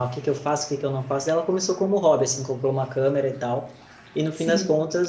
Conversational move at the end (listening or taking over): listening